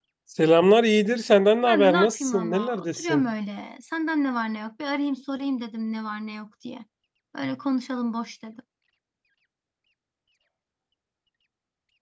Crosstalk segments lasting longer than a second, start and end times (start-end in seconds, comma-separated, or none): 1.6-3.3